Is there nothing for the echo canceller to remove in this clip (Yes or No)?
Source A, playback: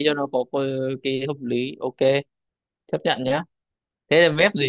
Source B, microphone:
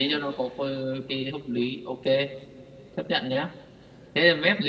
No